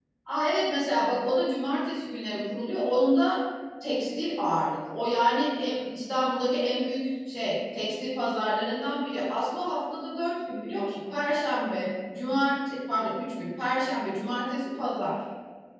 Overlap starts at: none

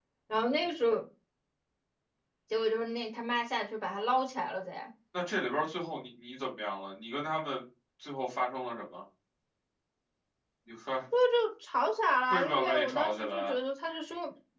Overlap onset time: 12.3 s

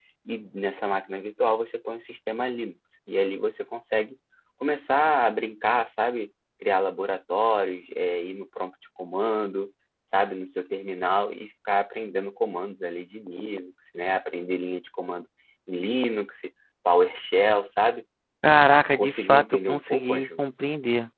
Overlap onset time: 19.0 s

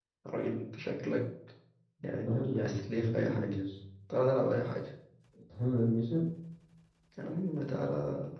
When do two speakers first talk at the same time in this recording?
2.0 s

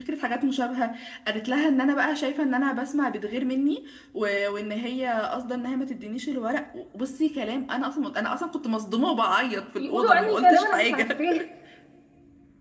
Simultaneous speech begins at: 9.8 s

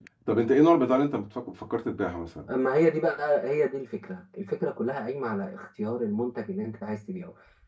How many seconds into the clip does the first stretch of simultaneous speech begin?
none

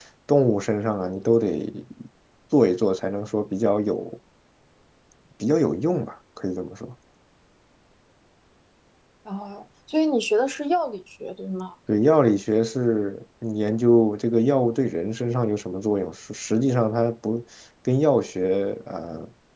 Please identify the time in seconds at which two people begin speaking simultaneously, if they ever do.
none

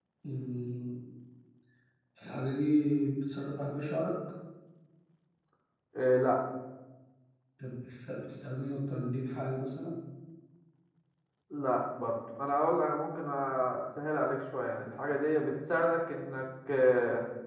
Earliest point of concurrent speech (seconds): none

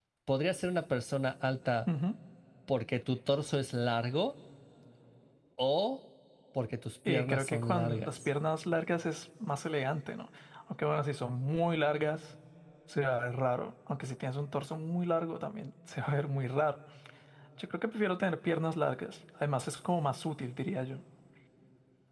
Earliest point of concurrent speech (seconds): 7.1 s

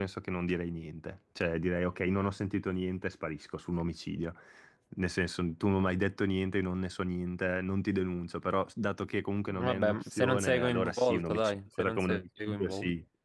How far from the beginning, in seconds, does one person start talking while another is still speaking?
9.5 s

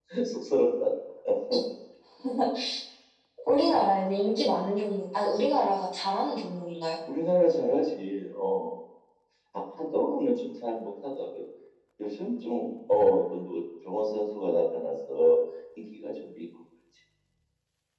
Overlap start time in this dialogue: none

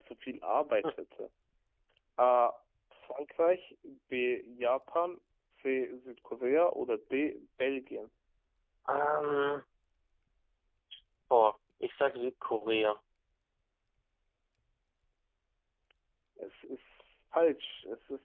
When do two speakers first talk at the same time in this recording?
none

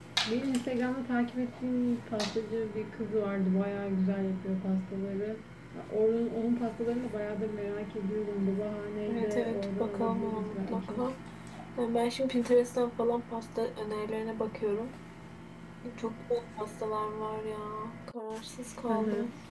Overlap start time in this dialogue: 9.1 s

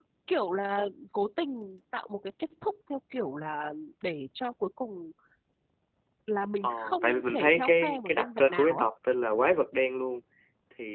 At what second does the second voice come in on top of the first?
6.6 s

